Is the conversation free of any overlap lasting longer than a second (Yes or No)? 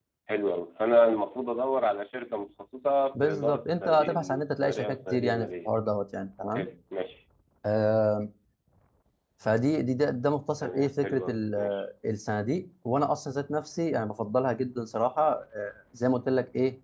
No